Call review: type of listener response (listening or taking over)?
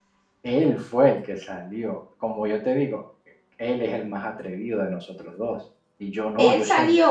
listening